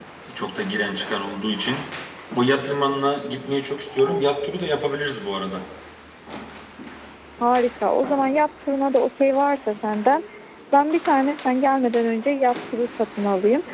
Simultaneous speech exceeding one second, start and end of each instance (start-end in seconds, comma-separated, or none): none